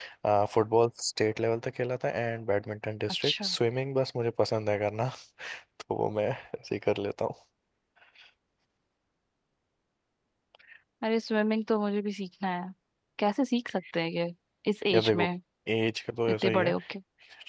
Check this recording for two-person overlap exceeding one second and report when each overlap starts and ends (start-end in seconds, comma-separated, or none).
none